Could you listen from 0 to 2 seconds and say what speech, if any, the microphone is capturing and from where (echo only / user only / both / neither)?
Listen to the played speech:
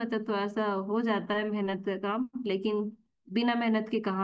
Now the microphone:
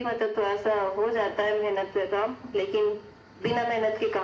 echo only